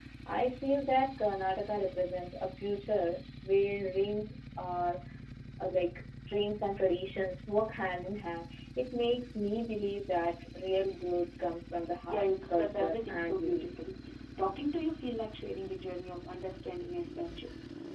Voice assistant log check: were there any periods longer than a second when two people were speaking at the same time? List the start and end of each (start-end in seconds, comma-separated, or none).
12.1-13.7